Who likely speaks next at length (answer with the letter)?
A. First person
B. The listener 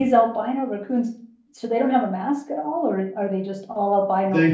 B